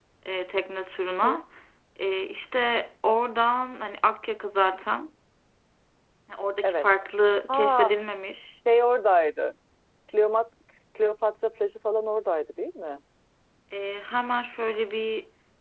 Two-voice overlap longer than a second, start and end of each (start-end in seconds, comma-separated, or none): none